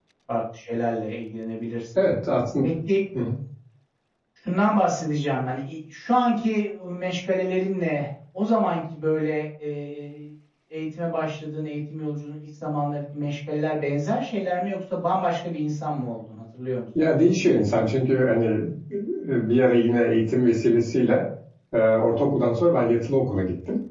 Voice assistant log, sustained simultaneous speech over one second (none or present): none